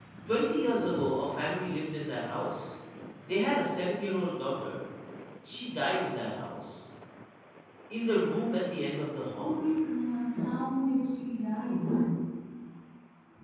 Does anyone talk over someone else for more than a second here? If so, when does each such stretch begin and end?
none

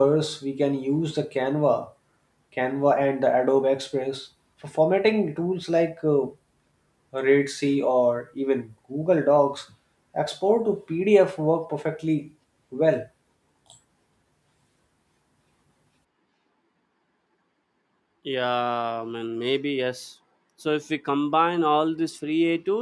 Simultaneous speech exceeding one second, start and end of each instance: none

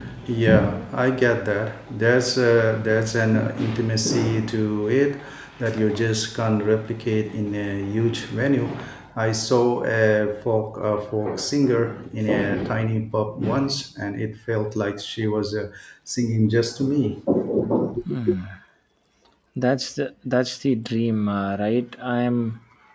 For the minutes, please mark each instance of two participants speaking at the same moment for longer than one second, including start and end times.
none

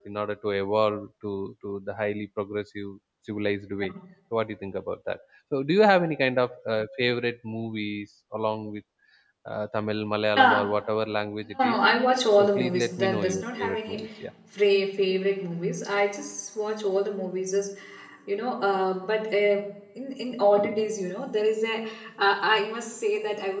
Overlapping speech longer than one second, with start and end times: 12.6-14.0

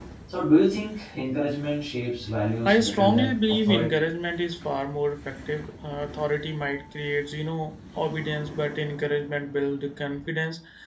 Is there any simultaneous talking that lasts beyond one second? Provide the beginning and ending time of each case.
2.6-4.0

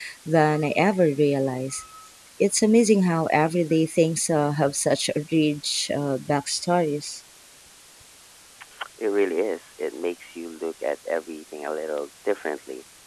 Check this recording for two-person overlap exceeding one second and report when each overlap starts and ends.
none

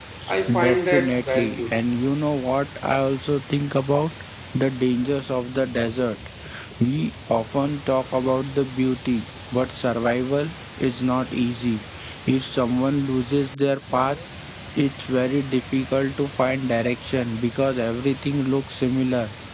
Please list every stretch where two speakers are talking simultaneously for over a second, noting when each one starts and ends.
0.6-2.0

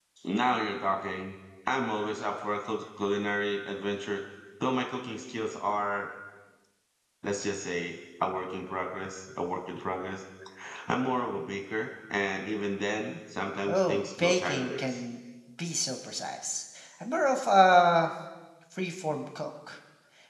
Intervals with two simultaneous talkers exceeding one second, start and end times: 13.7-15.0

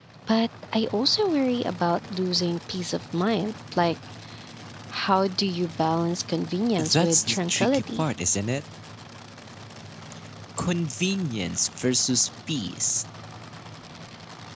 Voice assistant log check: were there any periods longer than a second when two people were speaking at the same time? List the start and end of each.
6.8-8.0

